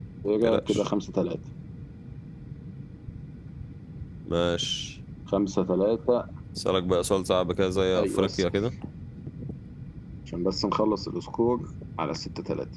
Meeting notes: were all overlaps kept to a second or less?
Yes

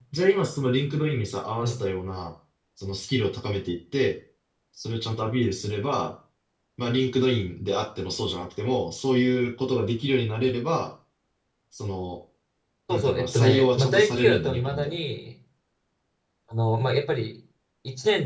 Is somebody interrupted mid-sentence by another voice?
Yes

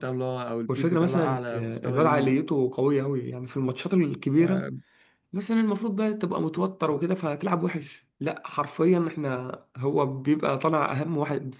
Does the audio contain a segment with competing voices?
Yes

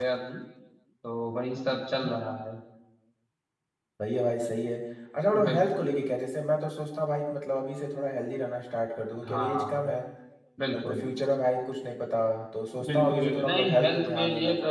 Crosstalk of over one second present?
Yes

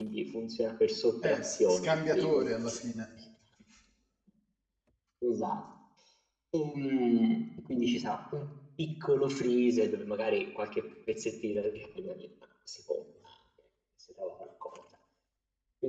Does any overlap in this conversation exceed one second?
Yes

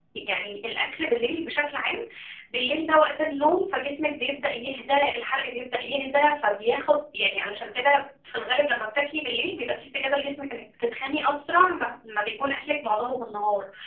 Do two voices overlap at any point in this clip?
No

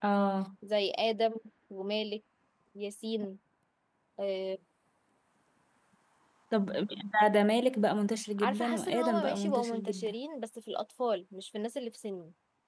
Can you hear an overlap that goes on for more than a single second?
Yes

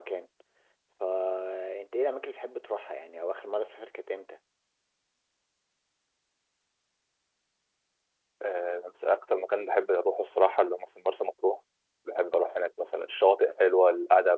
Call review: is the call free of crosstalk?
Yes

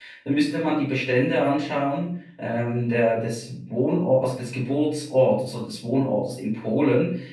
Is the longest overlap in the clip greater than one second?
No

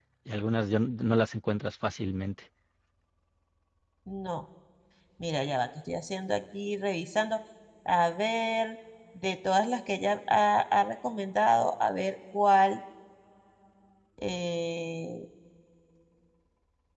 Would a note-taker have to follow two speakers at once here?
No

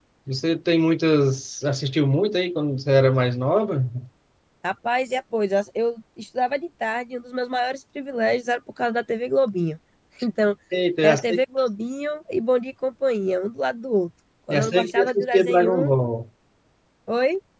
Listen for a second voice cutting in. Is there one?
Yes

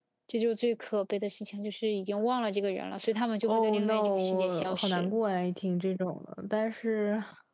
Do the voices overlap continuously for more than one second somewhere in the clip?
Yes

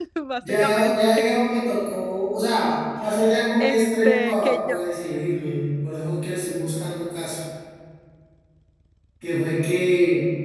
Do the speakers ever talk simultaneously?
Yes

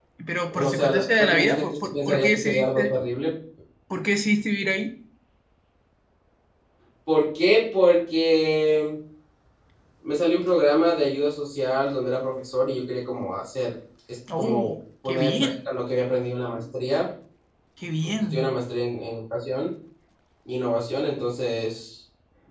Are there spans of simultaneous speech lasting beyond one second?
Yes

